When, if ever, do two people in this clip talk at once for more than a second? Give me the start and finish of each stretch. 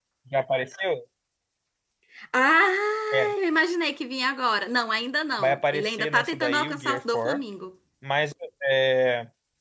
5.4-7.4

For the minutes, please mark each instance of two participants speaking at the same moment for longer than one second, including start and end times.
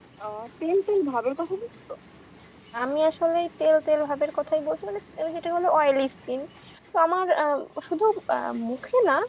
none

